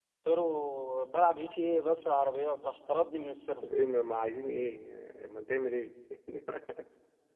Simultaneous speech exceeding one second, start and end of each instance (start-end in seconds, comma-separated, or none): none